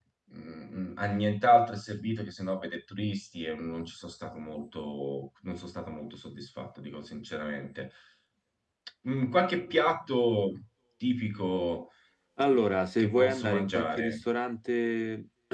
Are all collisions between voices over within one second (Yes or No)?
No